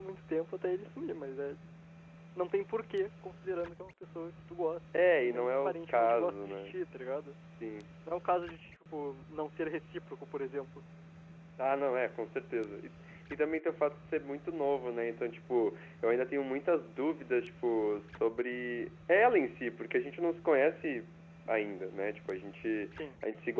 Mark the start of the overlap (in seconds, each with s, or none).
4.9 s